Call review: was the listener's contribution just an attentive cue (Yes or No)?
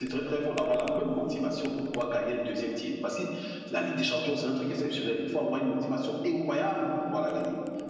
Yes